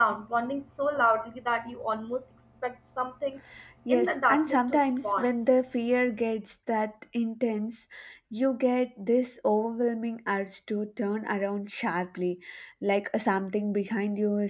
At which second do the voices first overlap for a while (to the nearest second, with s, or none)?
4 s